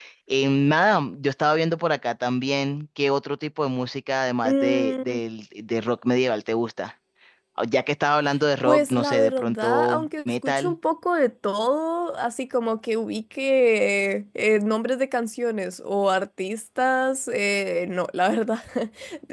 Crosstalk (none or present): present